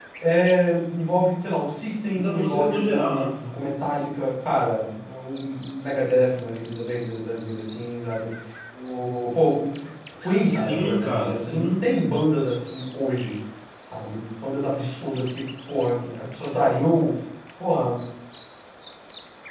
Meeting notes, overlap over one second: present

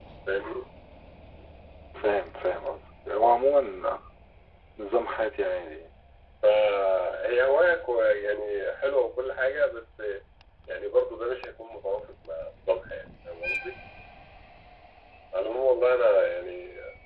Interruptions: none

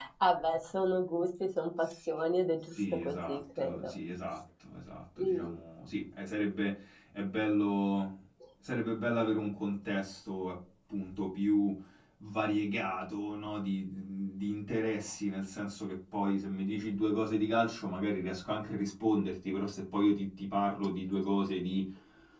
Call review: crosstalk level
present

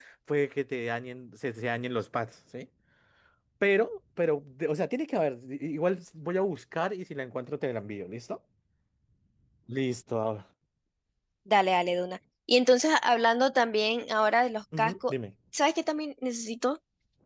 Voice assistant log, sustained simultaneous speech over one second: none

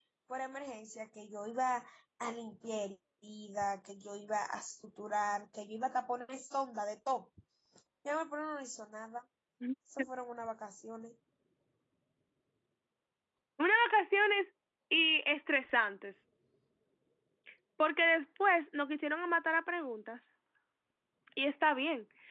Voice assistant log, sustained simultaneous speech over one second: none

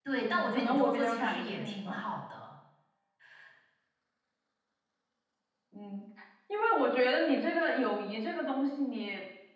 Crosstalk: present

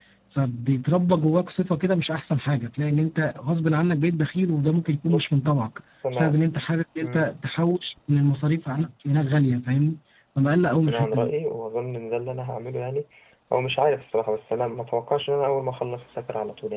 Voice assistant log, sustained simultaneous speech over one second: none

